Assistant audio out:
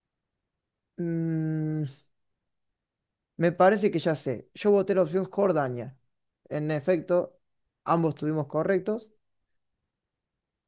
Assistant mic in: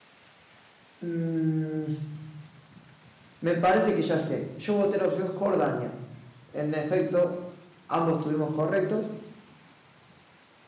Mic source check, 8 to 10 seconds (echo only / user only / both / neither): echo only